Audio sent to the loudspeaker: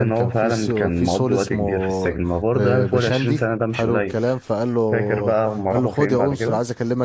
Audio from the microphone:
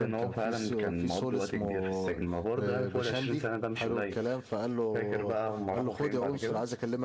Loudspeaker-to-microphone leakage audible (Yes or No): Yes